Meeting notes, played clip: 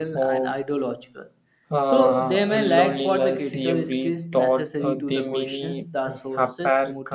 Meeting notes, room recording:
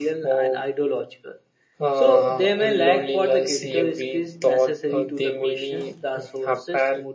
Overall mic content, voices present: echo only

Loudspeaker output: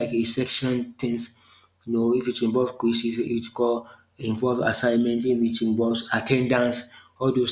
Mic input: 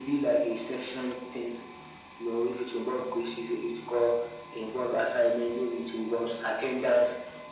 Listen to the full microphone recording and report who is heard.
echo only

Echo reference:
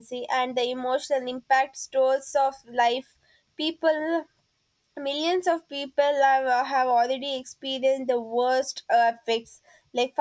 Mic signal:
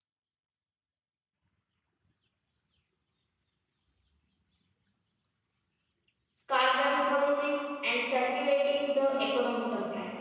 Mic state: user only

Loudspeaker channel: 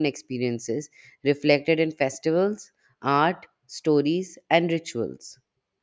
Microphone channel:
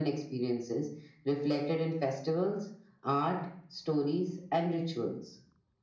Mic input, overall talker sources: echo only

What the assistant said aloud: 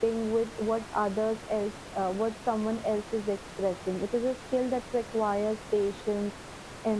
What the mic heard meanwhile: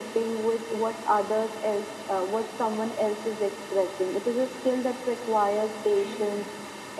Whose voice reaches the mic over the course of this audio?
both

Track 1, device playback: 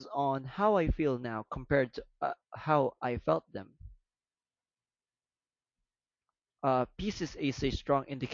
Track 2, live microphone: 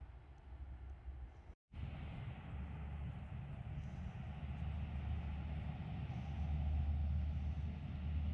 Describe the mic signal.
neither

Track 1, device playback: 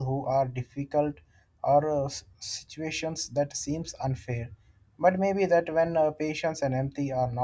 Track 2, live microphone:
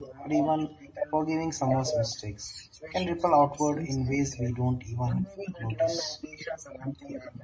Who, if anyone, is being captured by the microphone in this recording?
both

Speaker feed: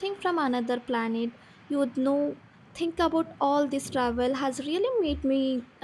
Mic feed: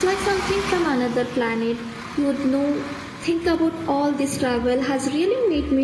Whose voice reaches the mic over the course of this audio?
echo only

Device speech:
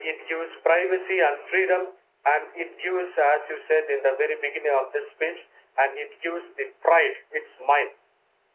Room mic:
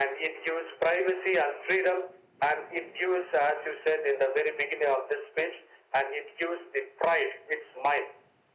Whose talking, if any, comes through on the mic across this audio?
echo only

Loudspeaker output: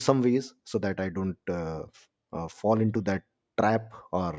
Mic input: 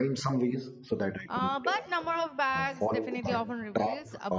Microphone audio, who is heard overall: both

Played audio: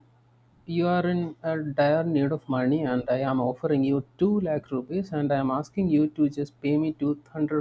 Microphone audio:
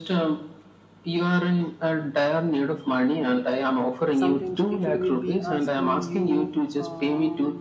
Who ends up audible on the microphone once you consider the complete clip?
both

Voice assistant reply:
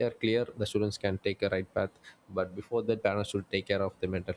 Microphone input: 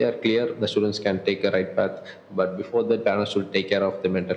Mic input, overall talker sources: echo only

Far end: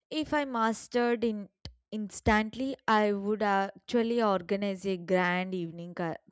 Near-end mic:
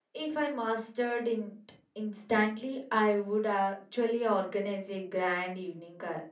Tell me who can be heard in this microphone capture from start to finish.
echo only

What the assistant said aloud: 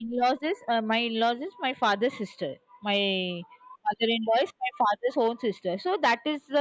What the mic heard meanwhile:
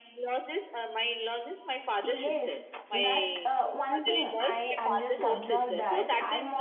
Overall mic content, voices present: both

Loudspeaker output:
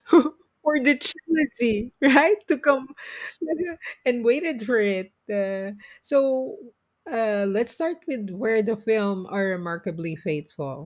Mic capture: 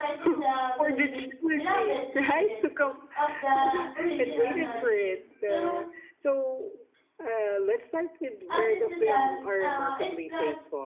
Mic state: both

